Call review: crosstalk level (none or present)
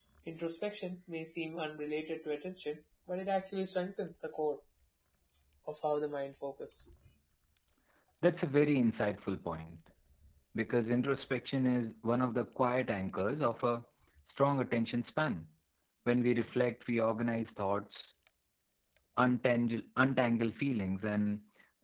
none